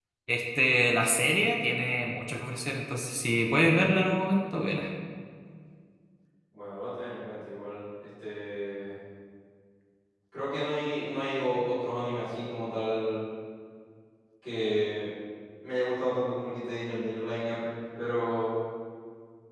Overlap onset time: none

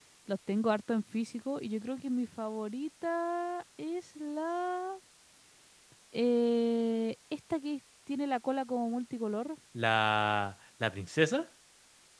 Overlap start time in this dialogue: none

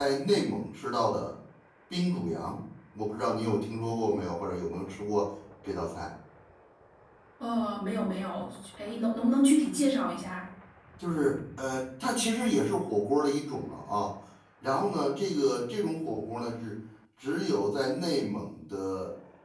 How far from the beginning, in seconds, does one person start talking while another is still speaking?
none

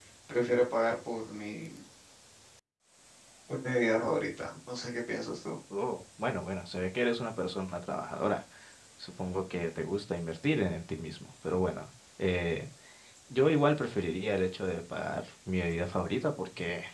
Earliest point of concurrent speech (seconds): none

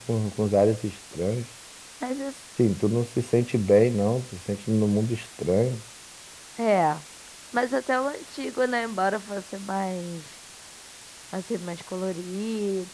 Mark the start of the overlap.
none

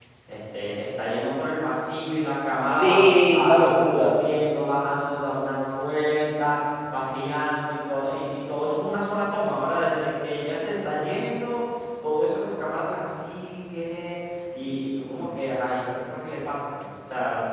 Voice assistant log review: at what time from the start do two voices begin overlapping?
3 s

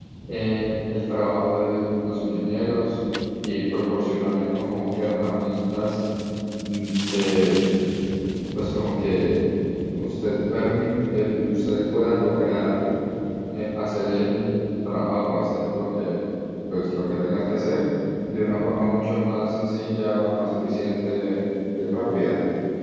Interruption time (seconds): none

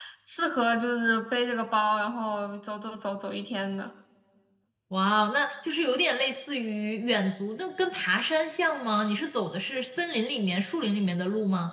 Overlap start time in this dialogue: none

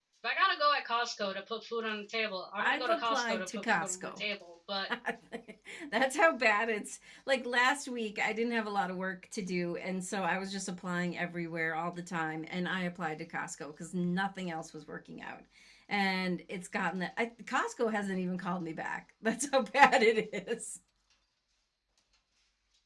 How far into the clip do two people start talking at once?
3 s

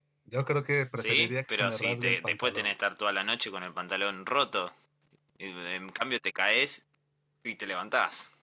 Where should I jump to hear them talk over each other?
1 s

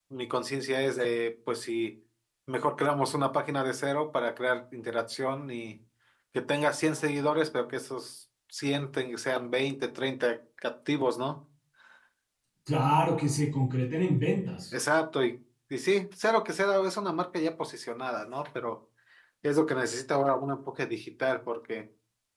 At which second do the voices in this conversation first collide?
none

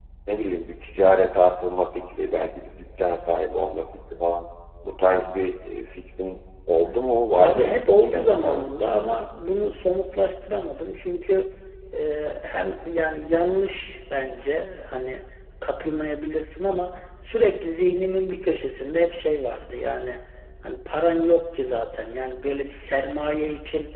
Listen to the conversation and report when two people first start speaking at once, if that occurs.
7 s

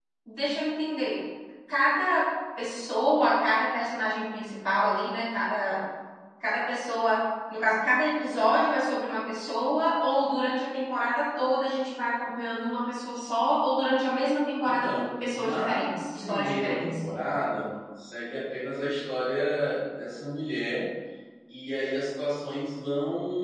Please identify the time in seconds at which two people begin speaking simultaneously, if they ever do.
15 s

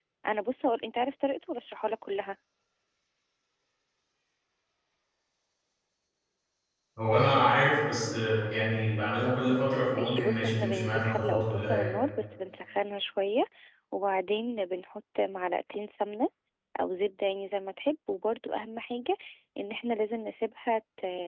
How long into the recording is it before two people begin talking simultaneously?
10 s

